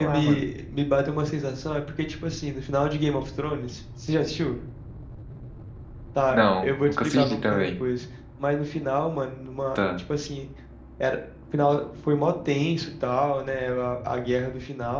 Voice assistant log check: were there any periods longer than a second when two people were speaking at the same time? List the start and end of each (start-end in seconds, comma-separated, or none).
6.3-7.7